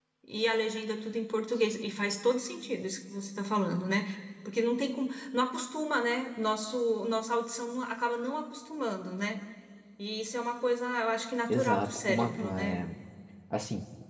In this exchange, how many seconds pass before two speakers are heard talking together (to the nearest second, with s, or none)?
11 s